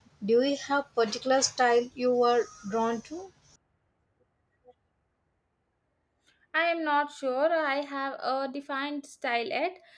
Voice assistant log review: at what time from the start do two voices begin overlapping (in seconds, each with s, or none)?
none